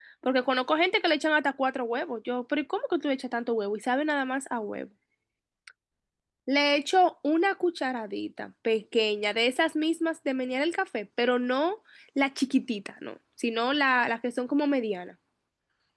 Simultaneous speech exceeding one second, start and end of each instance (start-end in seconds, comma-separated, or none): none